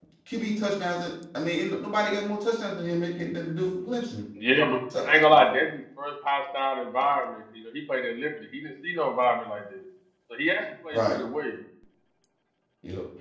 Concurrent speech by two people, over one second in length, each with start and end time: none

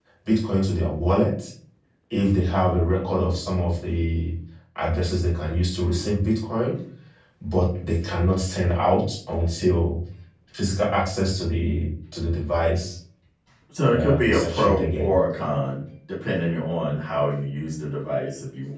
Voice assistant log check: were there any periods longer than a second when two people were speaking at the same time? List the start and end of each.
13.9-15.2

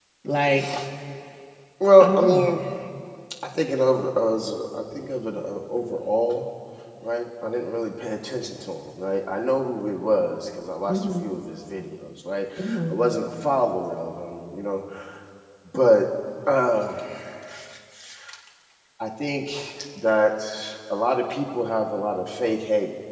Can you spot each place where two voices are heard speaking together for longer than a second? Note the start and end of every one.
none

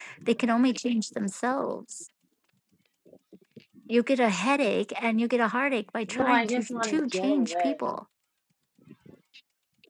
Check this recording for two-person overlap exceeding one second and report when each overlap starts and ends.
6.1-7.8

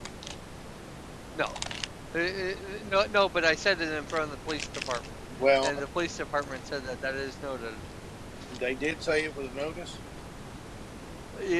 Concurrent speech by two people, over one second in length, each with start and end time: none

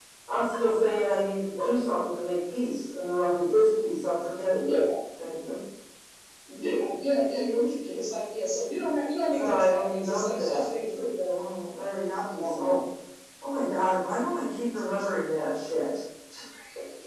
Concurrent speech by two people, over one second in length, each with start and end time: 9.3-10.7

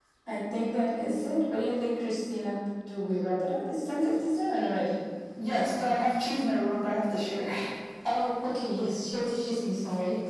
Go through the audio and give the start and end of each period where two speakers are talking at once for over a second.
none

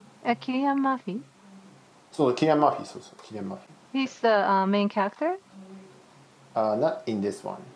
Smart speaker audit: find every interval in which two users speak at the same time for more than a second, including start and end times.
none

